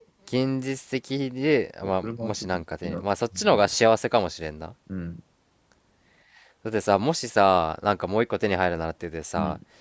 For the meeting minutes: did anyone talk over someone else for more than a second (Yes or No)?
Yes